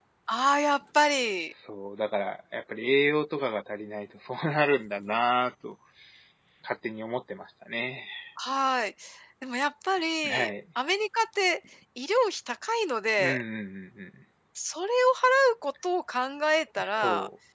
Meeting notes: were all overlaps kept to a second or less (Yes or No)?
Yes